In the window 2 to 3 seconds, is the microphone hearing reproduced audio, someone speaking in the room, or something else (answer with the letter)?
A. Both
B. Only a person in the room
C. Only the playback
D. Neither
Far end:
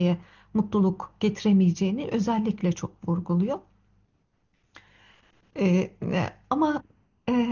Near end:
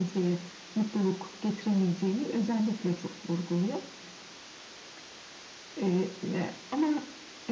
C